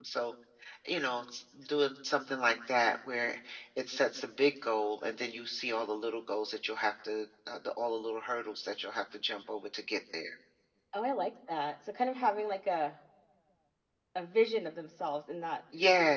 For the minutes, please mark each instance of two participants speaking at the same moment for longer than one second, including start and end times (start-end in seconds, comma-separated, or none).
none